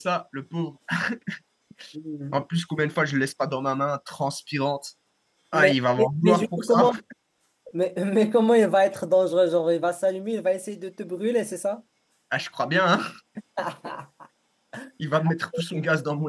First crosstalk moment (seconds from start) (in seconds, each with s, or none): 5.5 s